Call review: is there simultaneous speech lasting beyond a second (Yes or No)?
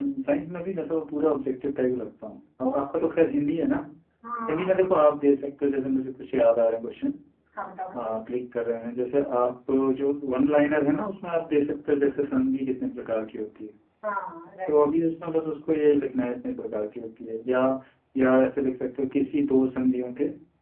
No